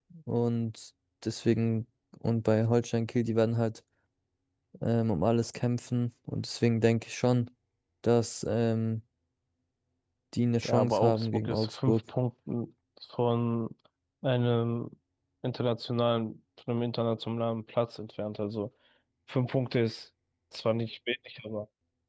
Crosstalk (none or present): present